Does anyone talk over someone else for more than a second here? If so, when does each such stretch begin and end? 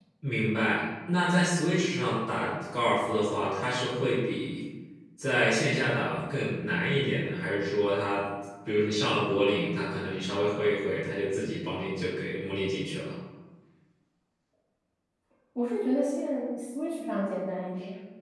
none

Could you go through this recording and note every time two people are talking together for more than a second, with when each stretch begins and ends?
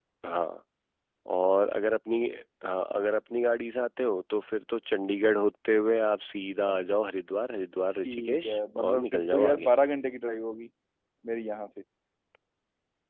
8.1-9.7

